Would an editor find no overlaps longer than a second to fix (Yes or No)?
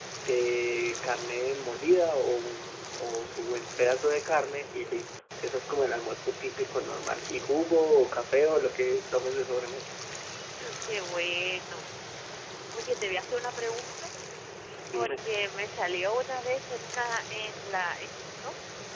Yes